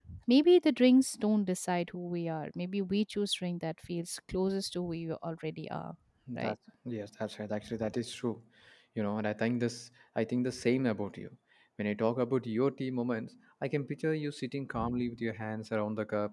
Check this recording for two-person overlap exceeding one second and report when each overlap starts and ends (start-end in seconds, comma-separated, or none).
none